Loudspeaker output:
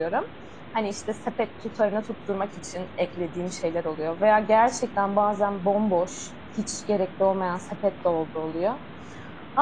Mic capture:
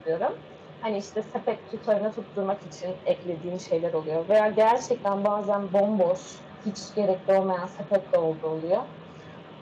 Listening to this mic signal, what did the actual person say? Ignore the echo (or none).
none